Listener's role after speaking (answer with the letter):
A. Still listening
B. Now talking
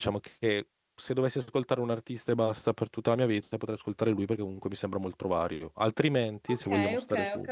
B